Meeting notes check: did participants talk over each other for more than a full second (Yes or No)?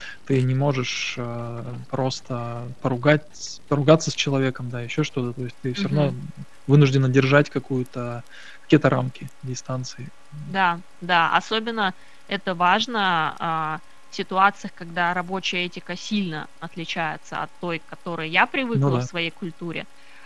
No